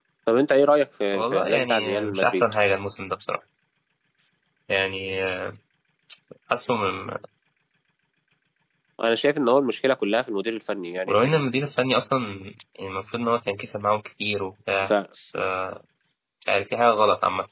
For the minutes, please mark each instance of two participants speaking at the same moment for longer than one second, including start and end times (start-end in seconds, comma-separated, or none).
1.1-2.4